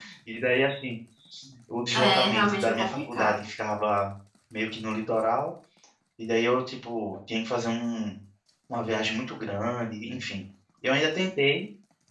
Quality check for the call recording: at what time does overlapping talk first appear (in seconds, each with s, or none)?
1.9 s